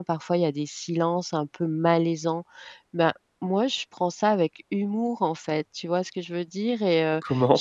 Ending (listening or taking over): listening